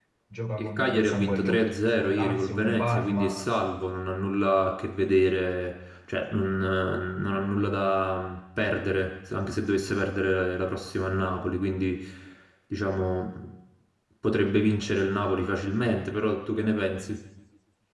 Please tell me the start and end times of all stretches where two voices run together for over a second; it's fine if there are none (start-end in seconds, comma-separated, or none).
0.6-3.5